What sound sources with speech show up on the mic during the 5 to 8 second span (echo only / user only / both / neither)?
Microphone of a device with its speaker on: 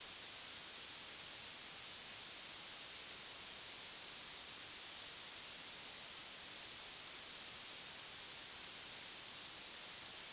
neither